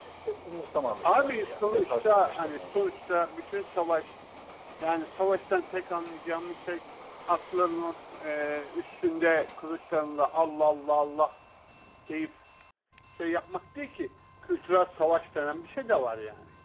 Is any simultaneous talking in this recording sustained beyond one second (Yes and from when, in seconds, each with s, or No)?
Yes, from 1.0 s